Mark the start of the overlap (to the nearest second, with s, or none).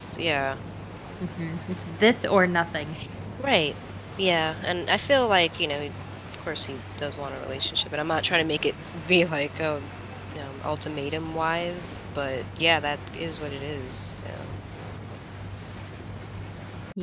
none